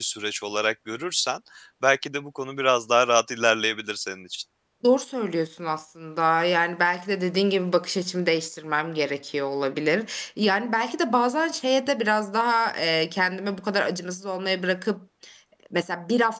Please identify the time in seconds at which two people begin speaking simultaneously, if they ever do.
none

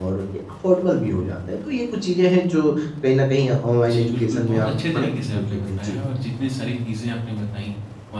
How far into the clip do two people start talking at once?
3.8 s

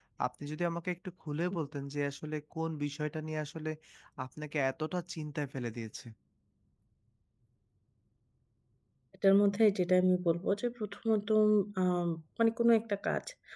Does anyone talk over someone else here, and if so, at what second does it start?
none

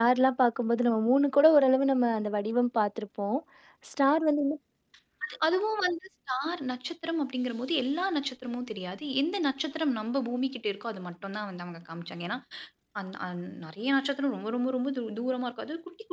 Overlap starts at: none

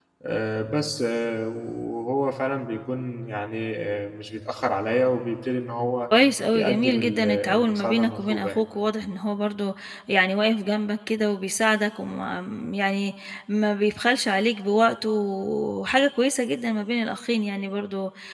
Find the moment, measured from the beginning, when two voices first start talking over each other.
6.5 s

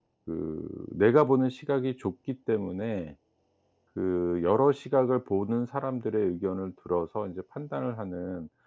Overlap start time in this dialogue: none

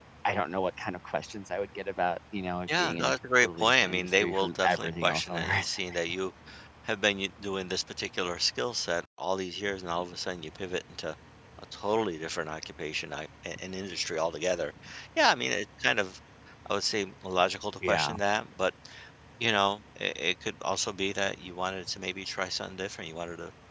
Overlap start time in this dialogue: 2.7 s

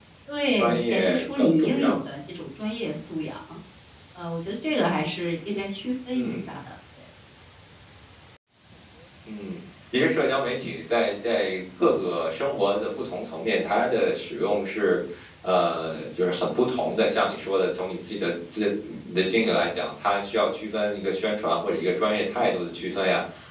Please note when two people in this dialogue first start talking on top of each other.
0.6 s

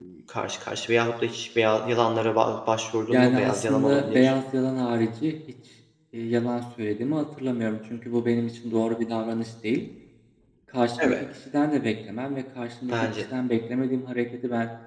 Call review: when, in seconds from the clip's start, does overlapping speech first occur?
3.1 s

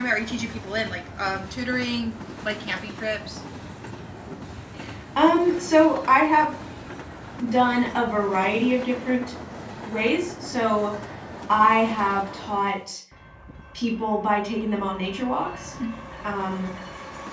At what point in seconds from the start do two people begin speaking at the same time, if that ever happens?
none

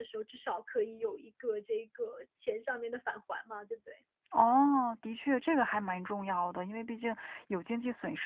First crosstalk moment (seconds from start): none

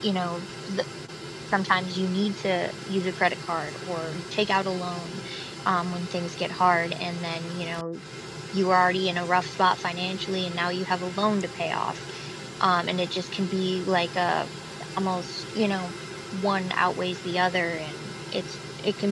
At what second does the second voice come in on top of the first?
none

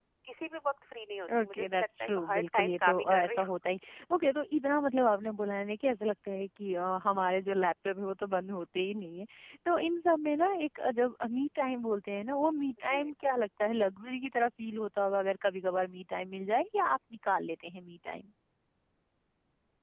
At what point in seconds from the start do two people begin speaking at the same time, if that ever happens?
1.3 s

